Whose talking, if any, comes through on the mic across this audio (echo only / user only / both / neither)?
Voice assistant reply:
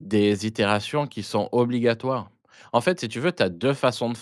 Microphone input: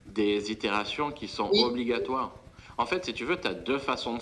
both